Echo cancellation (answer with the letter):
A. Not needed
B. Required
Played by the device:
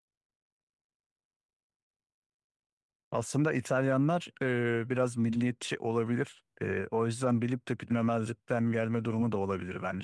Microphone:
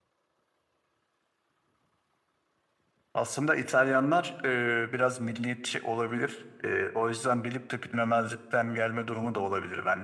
B